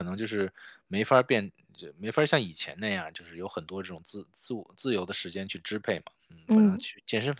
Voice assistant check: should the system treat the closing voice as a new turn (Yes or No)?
No